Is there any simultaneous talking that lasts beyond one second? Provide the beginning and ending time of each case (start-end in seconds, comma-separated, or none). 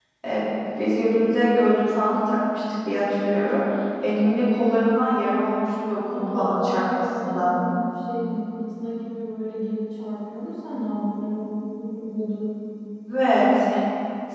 6.2-7.5